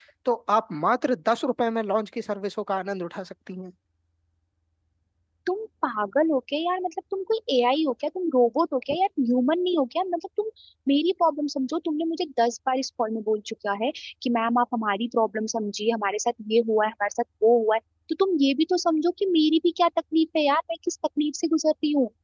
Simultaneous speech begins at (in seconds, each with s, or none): none